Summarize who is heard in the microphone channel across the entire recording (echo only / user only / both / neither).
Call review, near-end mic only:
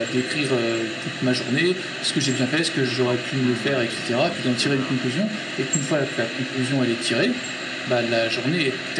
both